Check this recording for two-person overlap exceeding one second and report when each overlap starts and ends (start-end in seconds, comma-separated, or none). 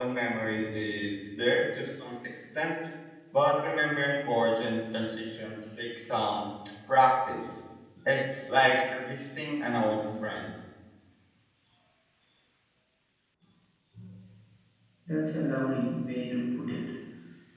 none